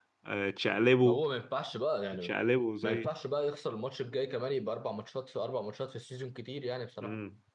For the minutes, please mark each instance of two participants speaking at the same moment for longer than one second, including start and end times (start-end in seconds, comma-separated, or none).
none